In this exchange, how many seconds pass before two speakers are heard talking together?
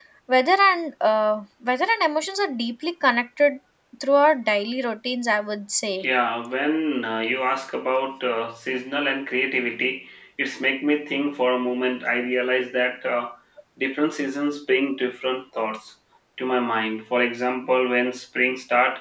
none

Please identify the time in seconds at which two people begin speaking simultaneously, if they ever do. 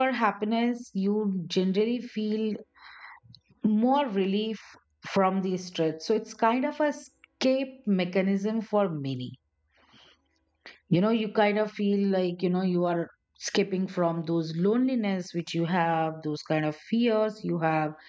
none

